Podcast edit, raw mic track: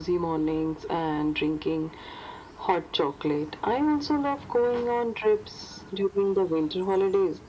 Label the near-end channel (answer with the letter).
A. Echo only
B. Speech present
A